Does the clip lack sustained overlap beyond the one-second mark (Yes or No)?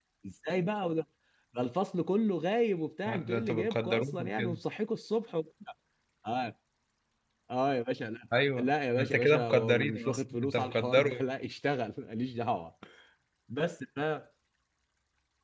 No